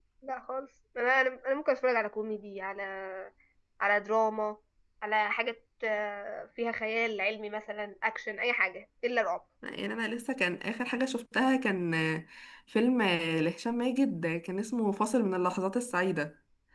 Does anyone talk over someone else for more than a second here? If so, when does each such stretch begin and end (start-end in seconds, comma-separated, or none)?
none